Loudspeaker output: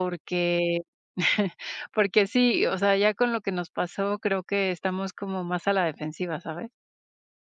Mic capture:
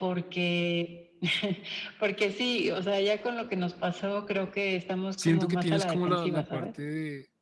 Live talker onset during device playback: 5.2 s

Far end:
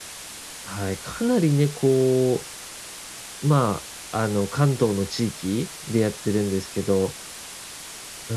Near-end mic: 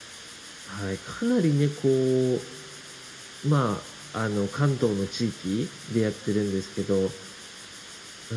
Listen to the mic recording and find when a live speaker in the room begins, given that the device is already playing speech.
none

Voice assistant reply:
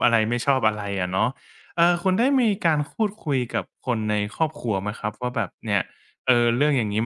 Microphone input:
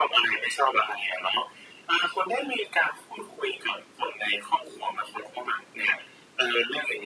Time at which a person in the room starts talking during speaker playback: none

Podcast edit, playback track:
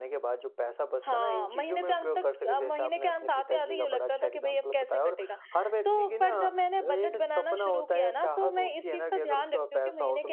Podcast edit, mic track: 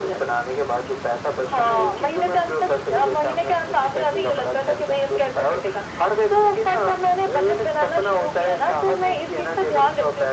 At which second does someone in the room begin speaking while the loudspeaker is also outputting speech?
none

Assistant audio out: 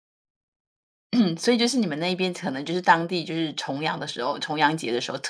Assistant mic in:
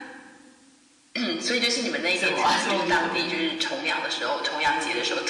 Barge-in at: 2.1 s

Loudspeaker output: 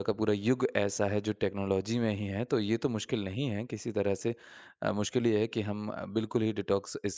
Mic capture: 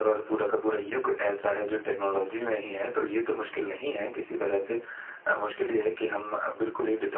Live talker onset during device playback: none

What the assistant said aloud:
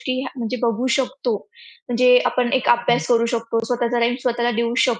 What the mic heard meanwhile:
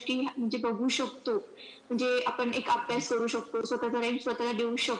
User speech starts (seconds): none

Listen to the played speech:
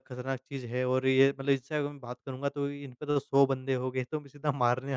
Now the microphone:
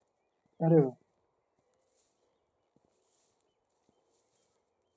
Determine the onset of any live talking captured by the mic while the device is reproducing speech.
0.6 s

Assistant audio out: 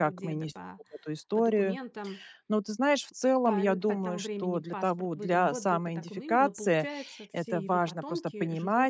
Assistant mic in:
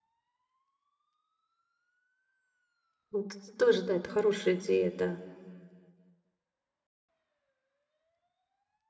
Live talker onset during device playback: 3.1 s

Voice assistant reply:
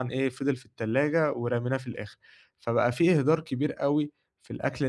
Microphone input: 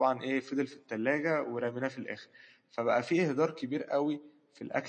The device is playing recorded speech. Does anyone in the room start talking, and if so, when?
none

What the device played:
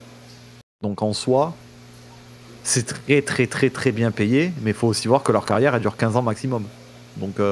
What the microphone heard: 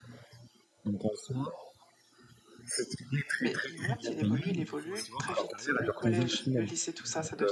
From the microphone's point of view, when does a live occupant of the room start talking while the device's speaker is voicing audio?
3.4 s

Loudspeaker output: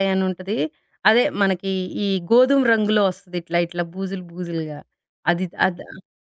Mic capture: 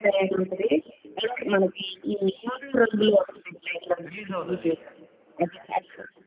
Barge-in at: 4.1 s

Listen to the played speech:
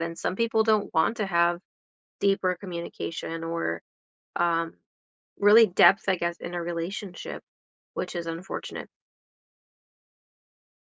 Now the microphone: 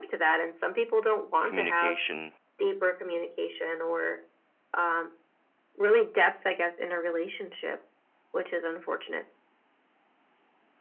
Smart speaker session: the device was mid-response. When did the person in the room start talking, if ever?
1.4 s

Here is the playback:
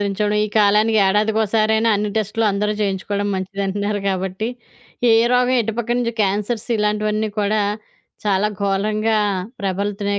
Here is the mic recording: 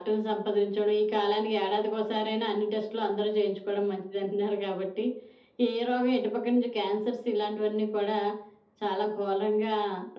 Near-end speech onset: none

